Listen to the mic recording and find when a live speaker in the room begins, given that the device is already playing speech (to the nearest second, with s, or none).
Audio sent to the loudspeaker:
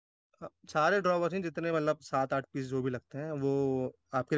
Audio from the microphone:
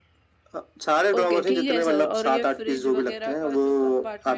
1 s